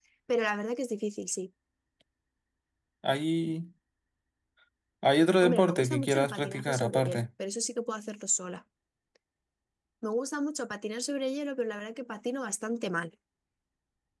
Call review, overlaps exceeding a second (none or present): present